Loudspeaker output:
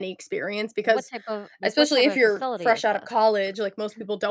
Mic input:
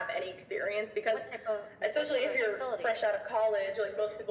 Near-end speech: none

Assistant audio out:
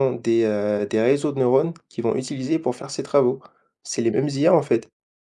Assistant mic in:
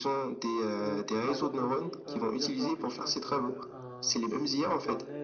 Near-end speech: present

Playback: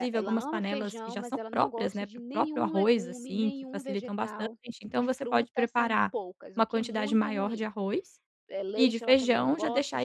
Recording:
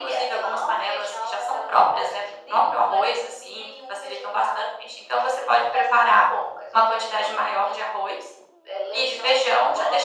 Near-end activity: none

